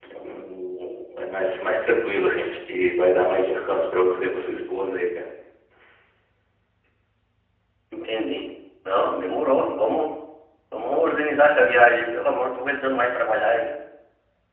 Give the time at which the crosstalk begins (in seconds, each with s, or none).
none